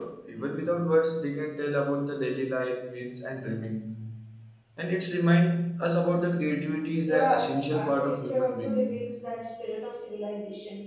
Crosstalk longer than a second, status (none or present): present